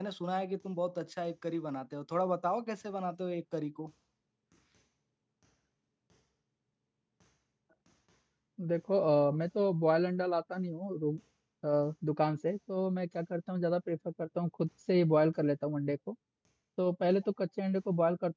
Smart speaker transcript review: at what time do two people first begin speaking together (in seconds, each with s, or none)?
none